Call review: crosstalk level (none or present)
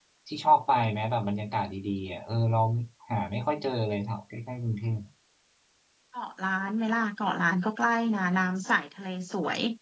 none